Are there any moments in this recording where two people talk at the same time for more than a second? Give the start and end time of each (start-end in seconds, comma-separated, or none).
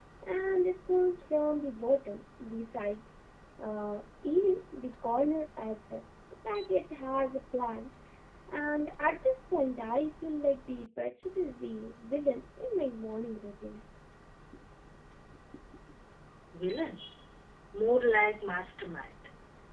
none